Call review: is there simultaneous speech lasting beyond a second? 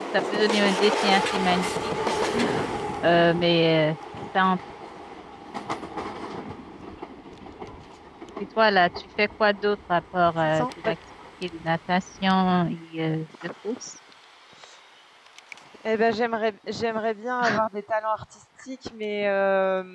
No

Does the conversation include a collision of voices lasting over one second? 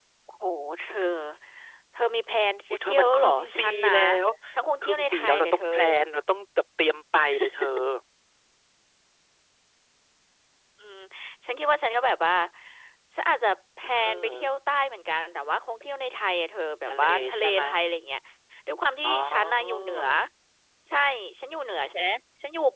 Yes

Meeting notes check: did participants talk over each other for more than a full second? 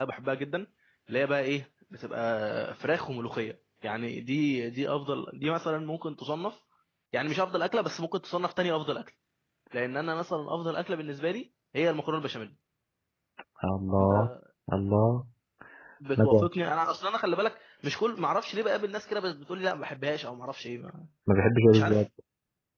No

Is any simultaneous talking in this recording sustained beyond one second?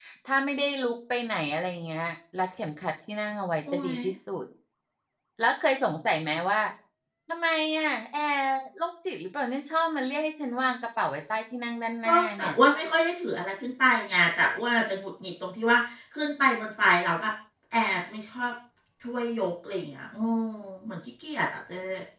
No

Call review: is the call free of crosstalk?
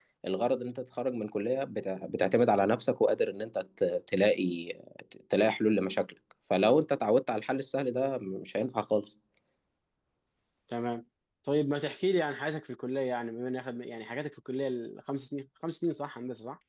Yes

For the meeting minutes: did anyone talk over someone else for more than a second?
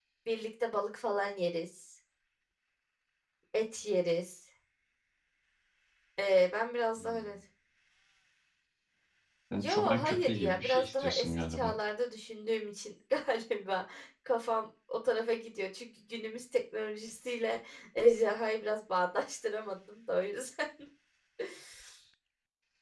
Yes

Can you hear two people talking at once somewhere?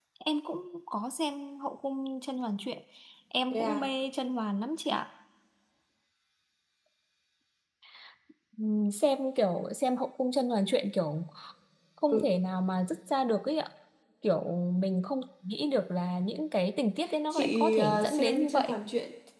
Yes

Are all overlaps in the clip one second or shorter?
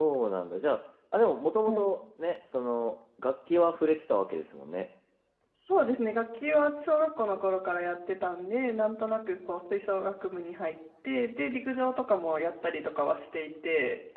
Yes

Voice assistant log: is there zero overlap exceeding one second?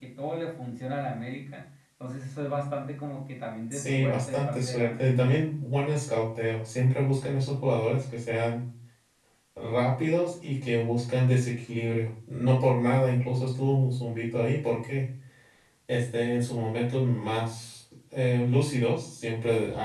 No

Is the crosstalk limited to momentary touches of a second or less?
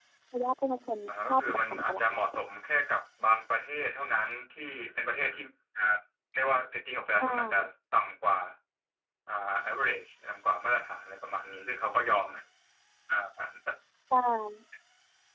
No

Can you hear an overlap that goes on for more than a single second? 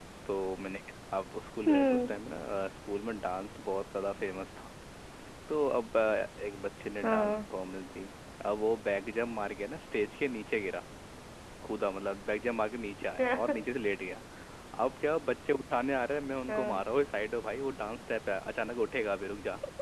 No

